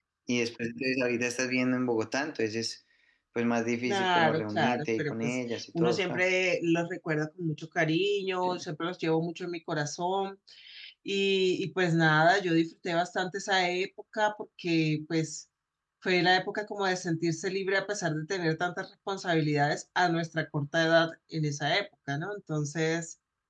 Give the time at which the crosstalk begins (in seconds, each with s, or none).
3.9 s